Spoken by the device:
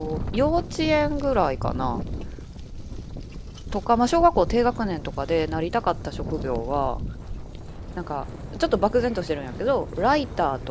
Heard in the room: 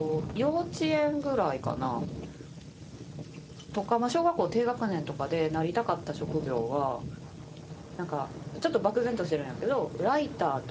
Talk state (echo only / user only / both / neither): echo only